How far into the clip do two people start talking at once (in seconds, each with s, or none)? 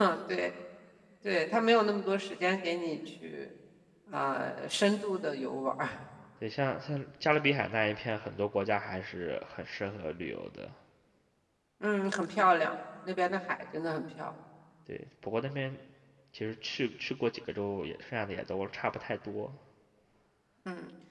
none